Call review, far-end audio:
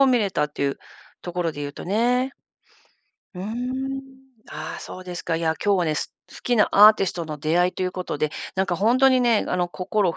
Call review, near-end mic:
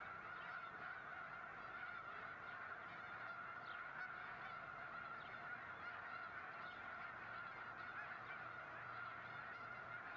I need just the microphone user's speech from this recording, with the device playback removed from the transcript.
none

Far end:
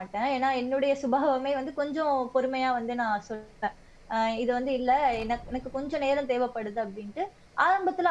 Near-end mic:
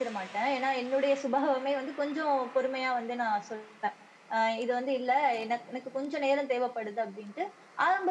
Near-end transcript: none

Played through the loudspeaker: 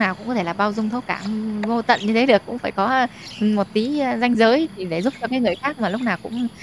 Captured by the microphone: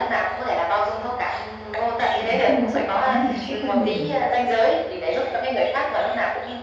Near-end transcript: mà không có sự cố gắng thì nó sẽ không bền.

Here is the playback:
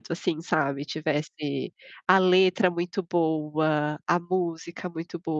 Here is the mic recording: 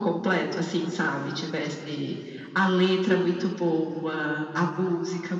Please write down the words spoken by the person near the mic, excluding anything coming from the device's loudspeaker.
none

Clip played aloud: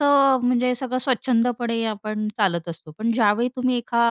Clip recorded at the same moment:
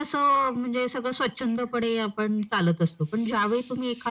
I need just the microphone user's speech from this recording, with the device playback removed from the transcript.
none

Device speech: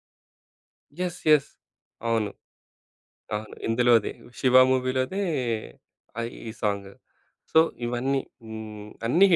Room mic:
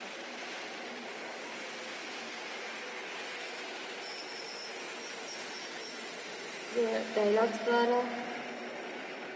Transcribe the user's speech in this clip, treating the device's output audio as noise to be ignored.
యాహ్! డైలాగ్స్ ద్వారా

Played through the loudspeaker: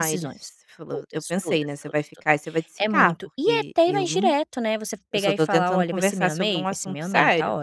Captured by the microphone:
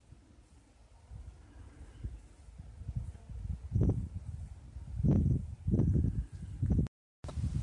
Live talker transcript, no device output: none

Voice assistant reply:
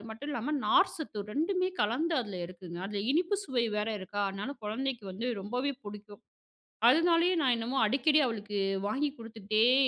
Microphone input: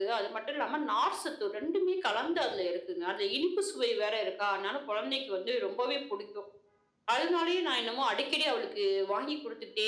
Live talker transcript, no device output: none

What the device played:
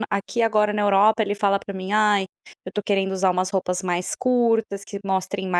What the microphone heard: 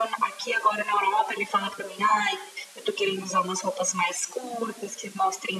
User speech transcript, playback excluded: none

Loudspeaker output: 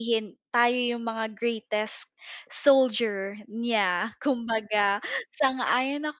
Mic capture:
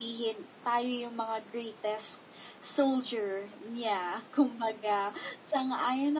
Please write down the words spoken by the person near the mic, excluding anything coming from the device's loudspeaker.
none

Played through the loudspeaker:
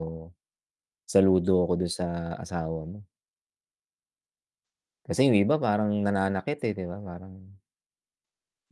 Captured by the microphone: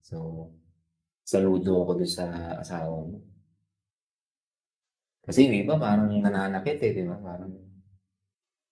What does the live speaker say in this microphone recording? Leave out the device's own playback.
none

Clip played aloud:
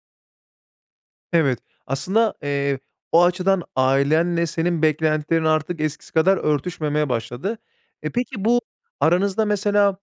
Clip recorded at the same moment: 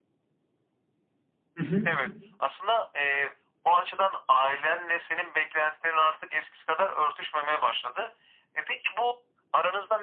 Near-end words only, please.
Hı hı.

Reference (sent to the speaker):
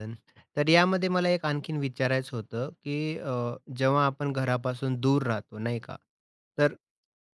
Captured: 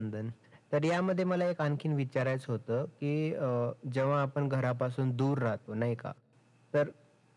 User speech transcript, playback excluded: none

